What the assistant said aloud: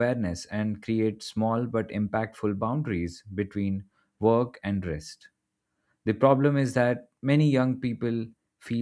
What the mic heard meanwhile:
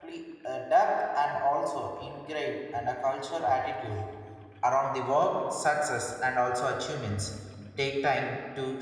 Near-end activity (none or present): present